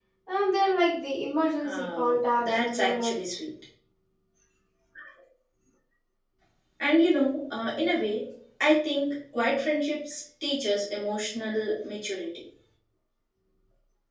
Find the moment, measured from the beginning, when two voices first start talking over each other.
1.6 s

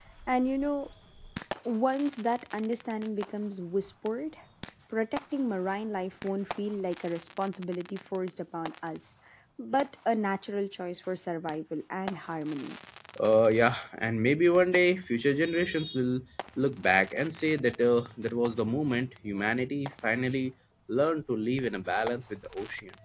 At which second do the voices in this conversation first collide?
none

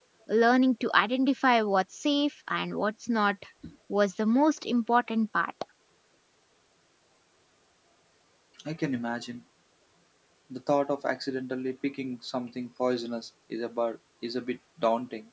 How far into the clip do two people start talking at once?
none

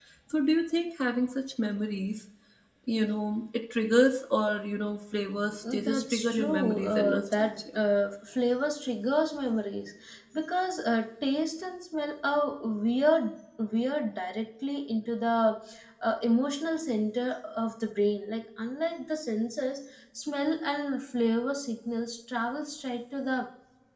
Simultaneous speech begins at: 5.6 s

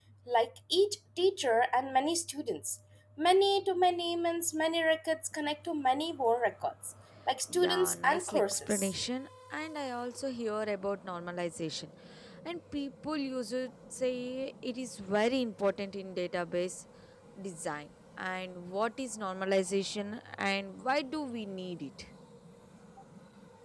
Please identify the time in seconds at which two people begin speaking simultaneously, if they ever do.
7.5 s

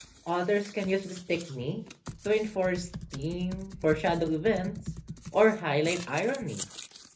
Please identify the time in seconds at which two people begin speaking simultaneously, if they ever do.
none

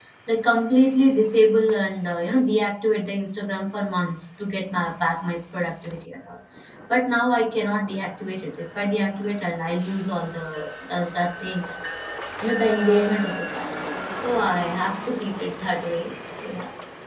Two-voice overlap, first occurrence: none

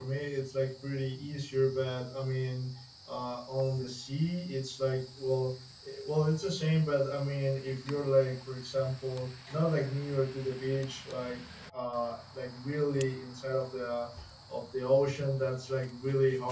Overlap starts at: none

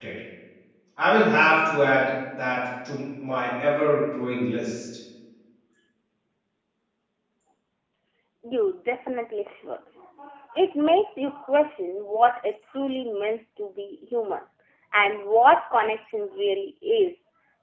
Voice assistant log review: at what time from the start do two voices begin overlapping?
none

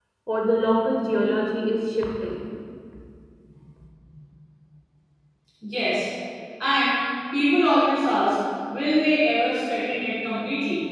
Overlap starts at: none

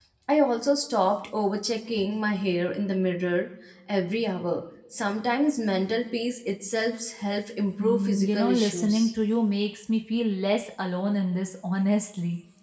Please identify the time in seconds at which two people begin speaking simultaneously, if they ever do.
7.8 s

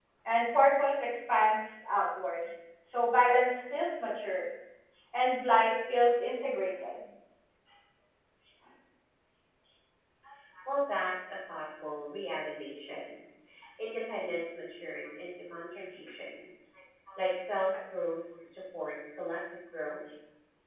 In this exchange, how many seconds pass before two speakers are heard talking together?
none

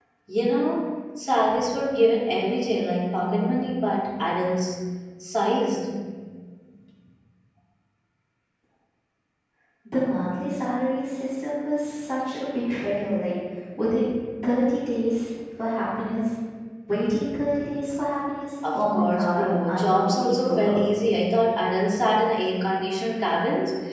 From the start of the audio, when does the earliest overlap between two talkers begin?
18.6 s

